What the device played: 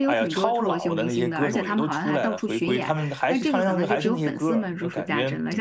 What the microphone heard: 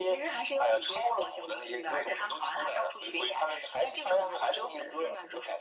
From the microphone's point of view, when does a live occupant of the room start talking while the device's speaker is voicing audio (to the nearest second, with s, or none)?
none